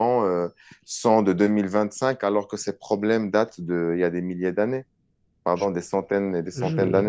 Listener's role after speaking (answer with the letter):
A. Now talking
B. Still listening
A